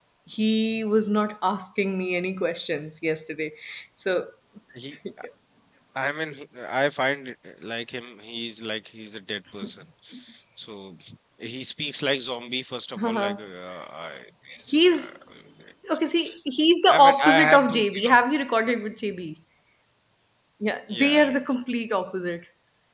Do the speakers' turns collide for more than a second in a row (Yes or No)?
Yes